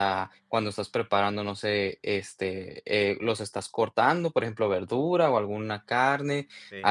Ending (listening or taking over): listening